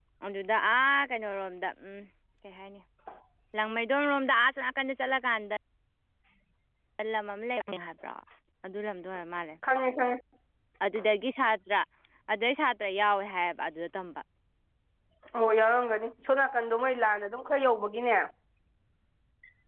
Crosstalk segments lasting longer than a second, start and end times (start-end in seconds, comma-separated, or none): none